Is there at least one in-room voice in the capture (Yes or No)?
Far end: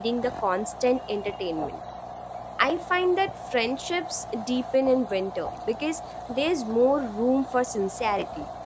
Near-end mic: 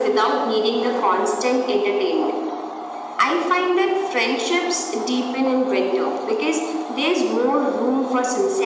No